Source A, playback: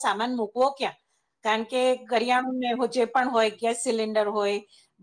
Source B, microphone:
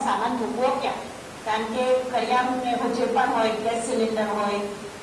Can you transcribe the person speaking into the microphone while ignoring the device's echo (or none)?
none